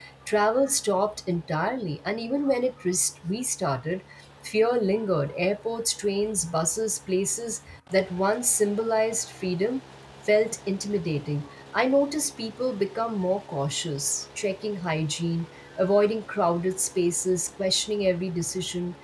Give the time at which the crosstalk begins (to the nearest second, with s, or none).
none